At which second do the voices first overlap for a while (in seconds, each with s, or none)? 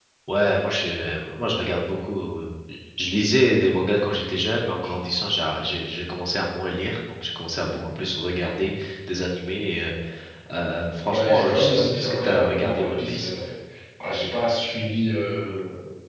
11.1 s